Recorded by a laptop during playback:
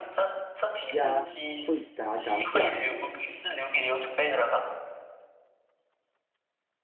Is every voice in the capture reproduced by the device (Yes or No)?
No